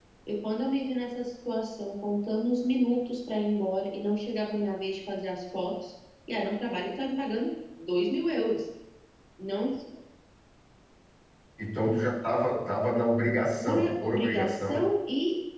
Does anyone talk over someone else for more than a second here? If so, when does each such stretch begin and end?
13.6-14.9

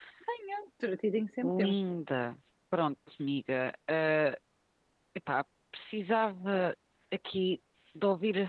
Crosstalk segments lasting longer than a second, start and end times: none

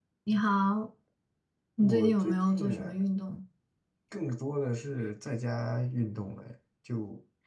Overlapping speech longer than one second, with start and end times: 1.8-3.0

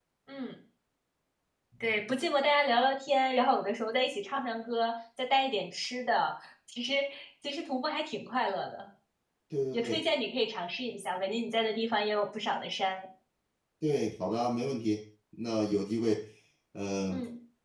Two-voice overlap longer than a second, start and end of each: none

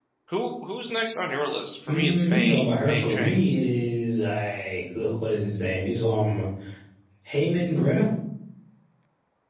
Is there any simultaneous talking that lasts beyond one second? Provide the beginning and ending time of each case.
1.9-3.4

